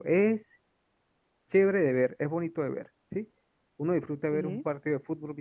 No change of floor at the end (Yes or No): Yes